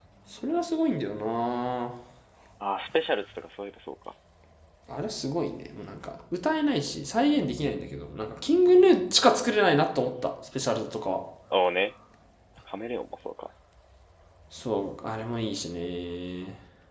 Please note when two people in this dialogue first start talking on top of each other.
none

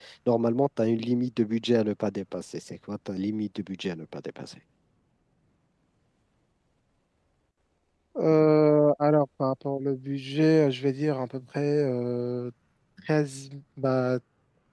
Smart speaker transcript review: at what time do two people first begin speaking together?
none

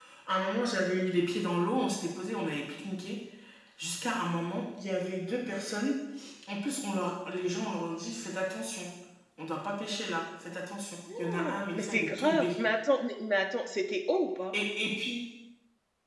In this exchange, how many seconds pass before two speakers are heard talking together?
11 s

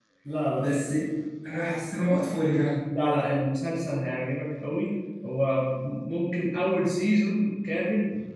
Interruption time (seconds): none

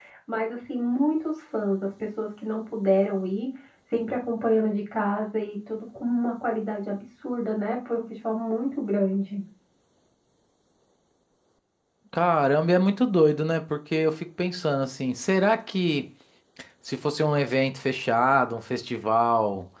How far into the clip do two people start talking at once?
none

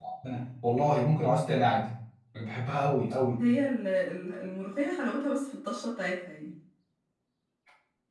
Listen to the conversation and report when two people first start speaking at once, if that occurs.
none

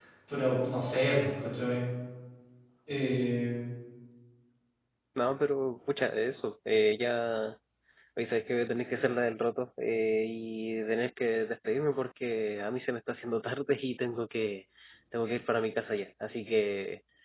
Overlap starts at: none

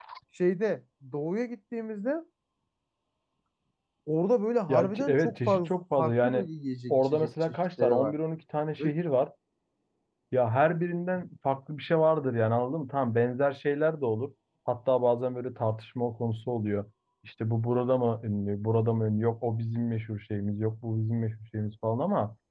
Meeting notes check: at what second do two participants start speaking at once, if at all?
5 s

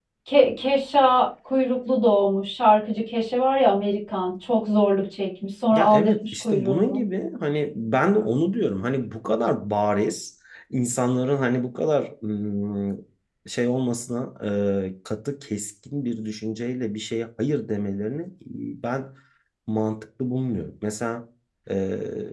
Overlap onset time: 6 s

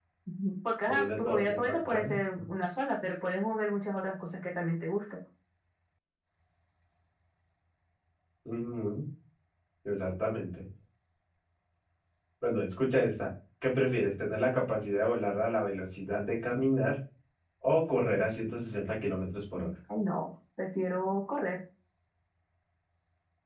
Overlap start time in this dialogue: 1 s

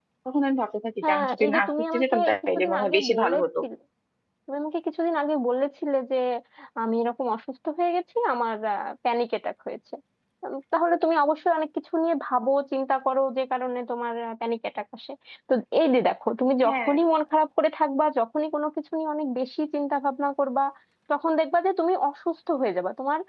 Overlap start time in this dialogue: 1 s

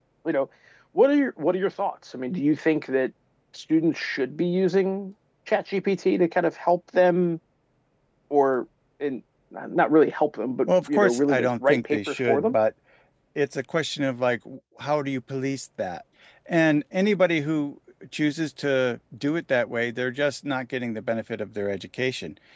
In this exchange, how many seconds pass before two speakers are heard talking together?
11 s

